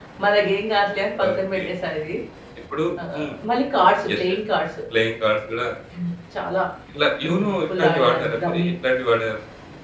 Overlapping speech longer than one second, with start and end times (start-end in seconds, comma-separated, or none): 7.2-8.7